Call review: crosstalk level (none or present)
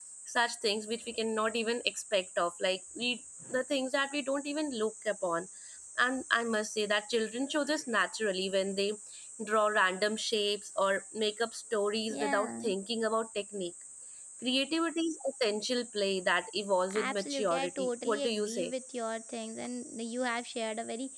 present